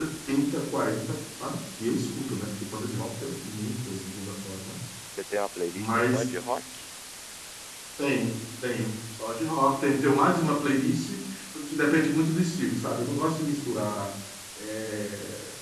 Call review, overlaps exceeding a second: none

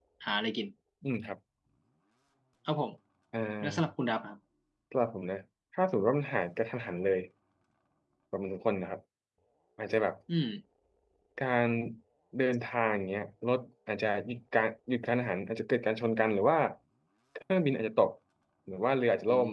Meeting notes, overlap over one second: none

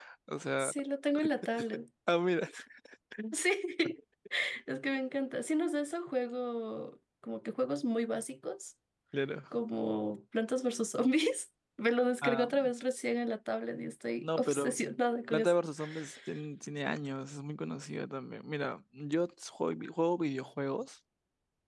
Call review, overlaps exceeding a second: none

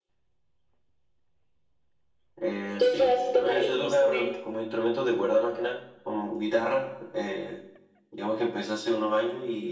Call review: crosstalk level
present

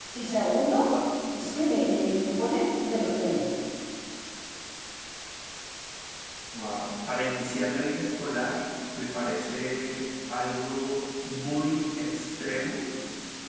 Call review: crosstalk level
none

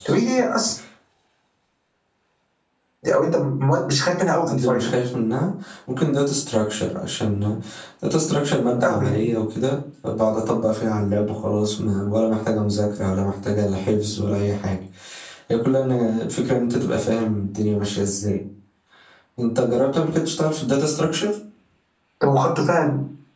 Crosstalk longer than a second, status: none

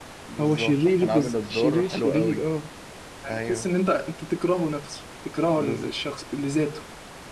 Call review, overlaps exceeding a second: present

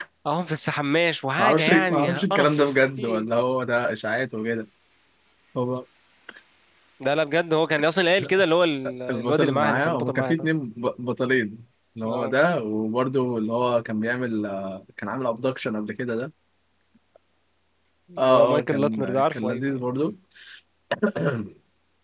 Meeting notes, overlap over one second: present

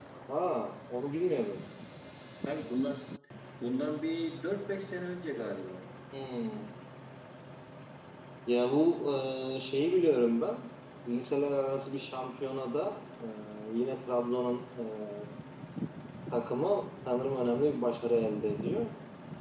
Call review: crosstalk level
none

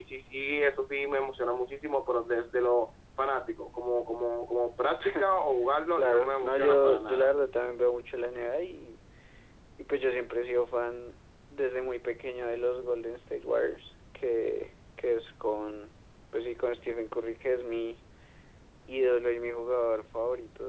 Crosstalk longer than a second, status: present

